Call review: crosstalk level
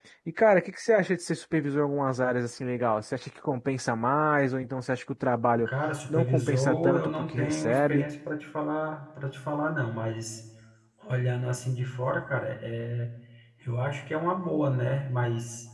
present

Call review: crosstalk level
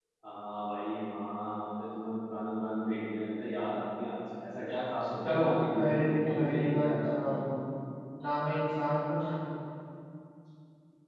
present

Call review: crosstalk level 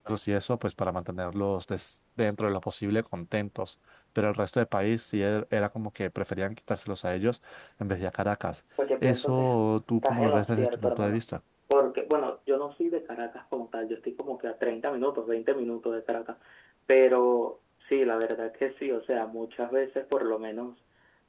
present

